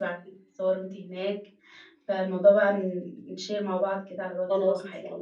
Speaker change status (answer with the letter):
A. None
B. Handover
B